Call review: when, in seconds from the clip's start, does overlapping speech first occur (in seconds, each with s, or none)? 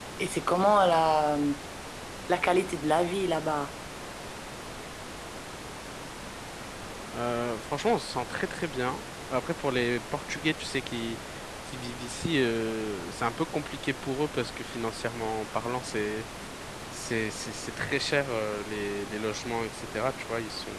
none